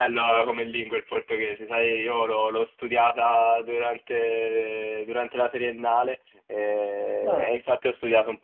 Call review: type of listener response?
listening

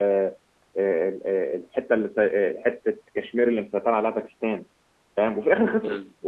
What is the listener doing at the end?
listening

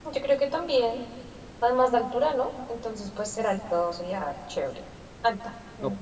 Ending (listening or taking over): taking over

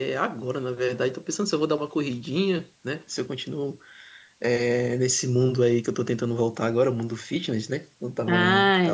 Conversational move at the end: taking over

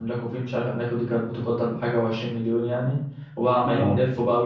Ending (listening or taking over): listening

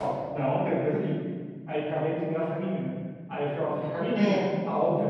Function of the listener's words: listening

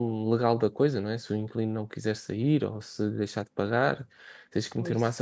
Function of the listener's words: listening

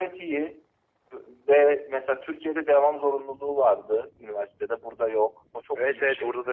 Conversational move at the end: taking over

